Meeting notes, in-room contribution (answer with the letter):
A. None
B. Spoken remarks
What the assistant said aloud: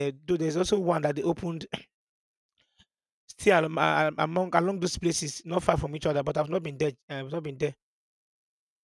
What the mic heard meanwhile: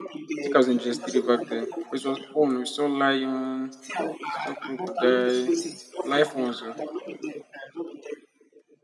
B